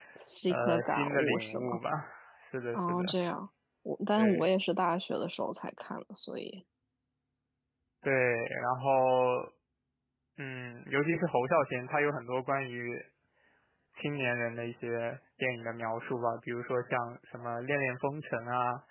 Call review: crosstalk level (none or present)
present